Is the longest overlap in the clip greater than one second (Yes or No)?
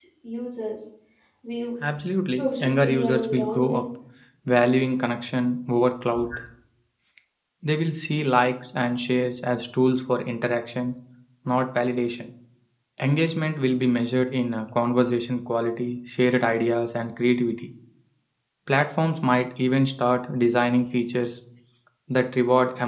Yes